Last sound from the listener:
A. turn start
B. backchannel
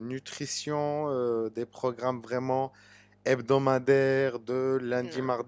B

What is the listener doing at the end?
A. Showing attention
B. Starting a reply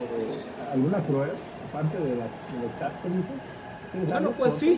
B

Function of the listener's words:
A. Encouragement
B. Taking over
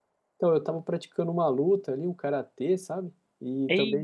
A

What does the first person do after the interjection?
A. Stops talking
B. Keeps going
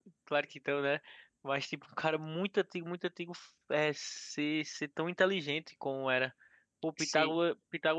B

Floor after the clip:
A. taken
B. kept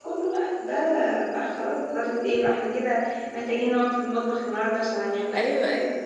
A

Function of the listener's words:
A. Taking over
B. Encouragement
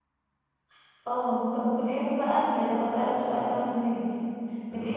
B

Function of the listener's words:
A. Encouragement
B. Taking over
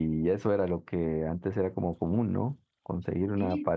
A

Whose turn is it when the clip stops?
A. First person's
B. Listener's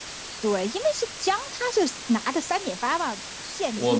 B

